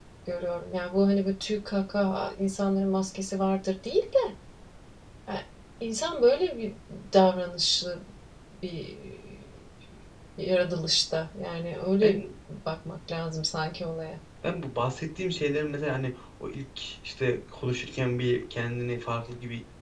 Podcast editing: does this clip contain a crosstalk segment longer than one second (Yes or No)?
No